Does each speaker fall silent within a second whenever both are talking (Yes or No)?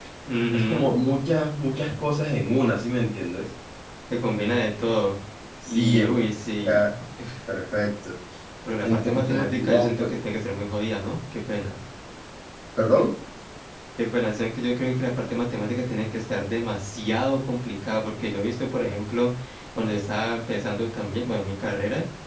No